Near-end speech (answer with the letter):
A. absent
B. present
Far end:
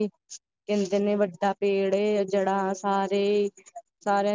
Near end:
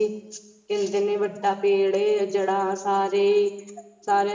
A